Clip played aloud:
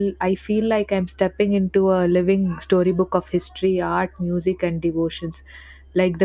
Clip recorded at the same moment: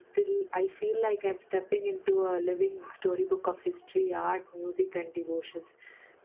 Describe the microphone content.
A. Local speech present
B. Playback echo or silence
B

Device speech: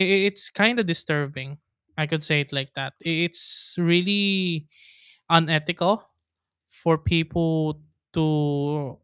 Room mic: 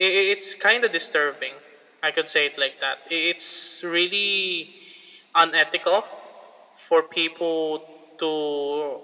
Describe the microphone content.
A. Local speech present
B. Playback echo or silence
B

